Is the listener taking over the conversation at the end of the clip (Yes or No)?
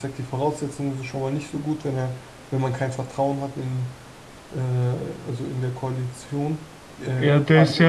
Yes